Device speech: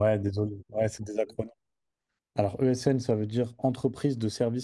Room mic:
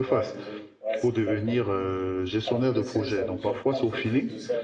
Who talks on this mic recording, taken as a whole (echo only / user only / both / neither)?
both